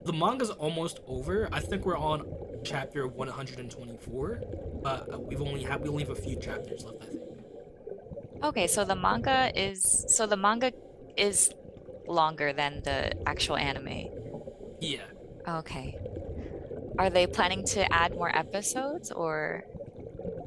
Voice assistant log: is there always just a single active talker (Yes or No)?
Yes